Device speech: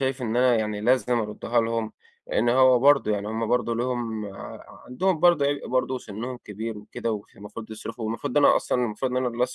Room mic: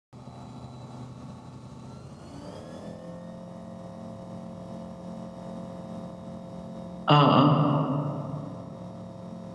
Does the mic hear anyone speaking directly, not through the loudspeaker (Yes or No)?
Yes